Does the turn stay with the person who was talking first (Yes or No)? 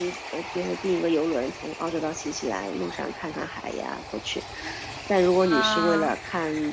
Yes